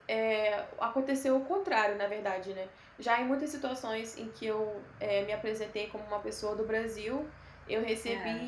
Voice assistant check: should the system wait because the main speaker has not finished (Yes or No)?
Yes